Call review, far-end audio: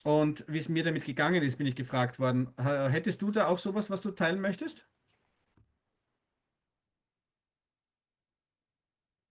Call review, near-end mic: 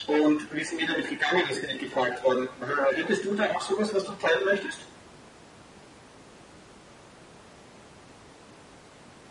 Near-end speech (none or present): none